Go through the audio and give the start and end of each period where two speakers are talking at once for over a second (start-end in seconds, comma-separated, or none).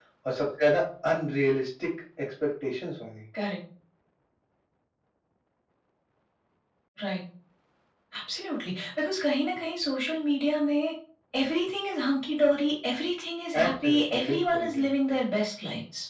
13.6-15.2